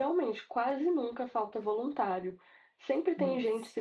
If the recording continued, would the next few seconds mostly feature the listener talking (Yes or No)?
No